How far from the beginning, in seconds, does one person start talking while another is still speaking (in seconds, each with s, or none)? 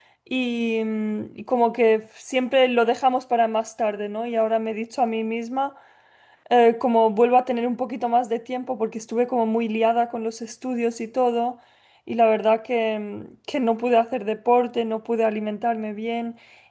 none